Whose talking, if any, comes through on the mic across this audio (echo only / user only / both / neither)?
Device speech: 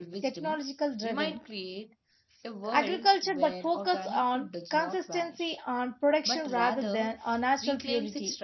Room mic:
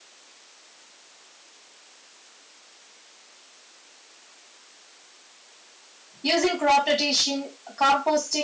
user only